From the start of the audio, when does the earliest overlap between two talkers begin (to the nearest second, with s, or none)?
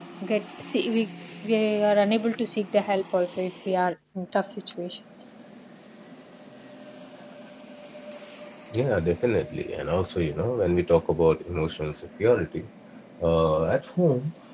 none